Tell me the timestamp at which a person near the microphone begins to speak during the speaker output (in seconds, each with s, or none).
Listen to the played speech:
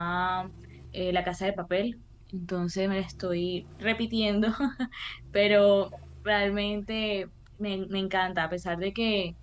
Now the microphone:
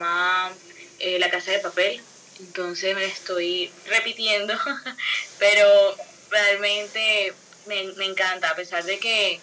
none